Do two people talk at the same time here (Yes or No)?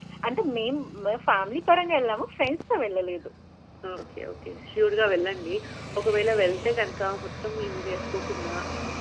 No